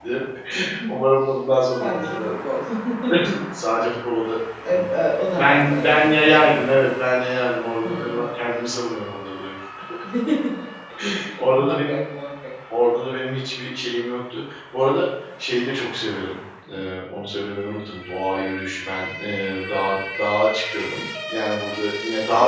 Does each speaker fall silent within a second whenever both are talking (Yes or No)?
No